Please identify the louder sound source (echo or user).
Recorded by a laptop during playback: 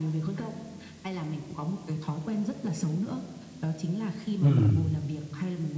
user